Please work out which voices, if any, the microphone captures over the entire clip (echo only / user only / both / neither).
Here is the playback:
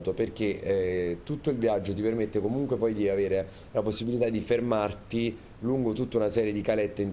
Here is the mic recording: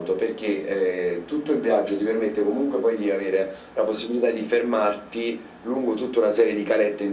echo only